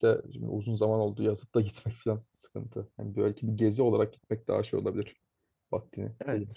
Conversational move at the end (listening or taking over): taking over